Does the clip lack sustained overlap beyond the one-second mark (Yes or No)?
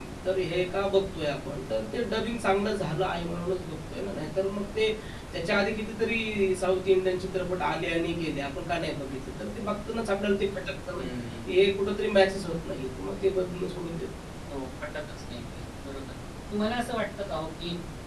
Yes